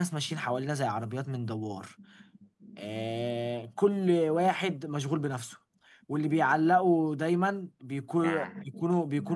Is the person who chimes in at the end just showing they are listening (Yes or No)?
Yes